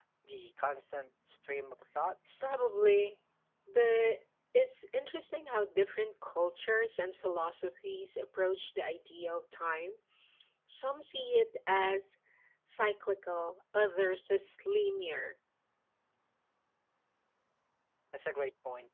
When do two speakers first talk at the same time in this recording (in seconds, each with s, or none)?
none